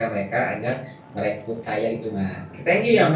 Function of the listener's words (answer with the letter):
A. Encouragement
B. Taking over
B